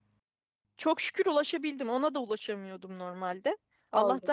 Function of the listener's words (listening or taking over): listening